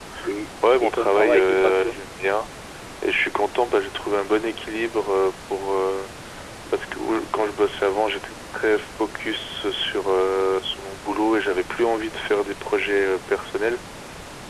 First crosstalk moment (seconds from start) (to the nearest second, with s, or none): 1 s